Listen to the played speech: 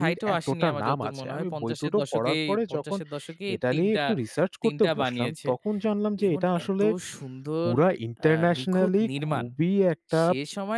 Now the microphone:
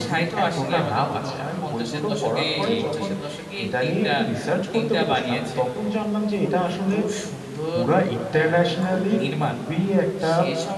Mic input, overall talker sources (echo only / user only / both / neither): both